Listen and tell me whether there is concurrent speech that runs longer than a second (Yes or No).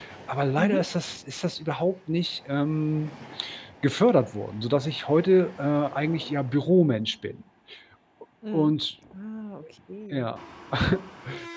No